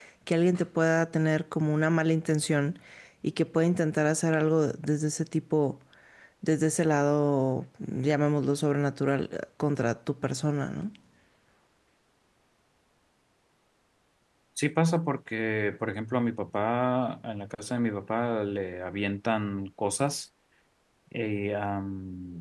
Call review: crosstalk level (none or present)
none